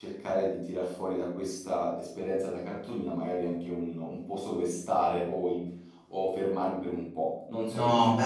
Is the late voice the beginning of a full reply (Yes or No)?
Yes